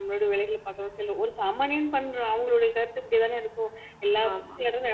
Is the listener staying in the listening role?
Yes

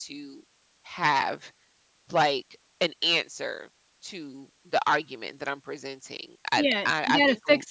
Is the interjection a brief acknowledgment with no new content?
No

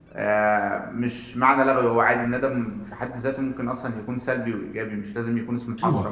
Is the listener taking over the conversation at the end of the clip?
Yes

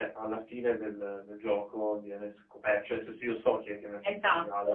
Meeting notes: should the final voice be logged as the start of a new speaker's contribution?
Yes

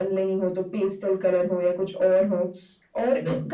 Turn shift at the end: No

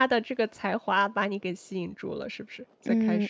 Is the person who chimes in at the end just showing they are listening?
No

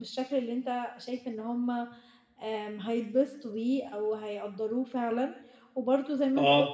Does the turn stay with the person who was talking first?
Yes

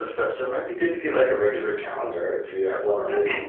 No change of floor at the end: Yes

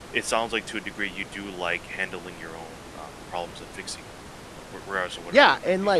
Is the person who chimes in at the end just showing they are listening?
No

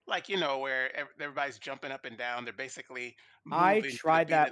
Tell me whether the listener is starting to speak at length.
Yes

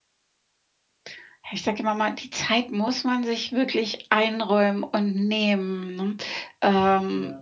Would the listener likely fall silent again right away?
Yes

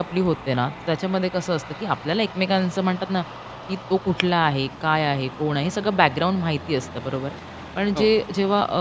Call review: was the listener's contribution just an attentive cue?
Yes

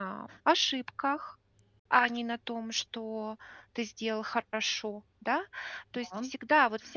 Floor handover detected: No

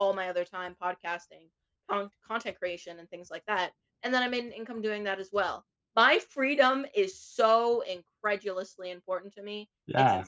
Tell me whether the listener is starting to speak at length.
Yes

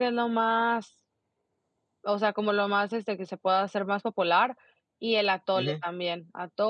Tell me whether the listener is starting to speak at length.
No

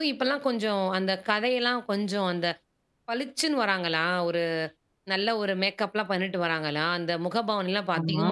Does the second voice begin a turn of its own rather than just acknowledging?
No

